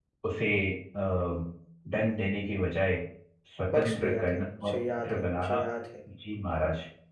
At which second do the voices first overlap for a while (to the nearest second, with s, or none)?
4 s